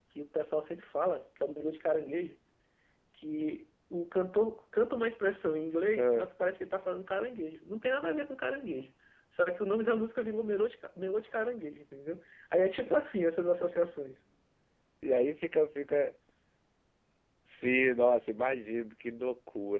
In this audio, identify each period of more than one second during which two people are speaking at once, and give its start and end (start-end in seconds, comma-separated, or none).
none